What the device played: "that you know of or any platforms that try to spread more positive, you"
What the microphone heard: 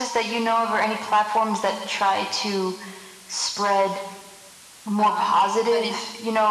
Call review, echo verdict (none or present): present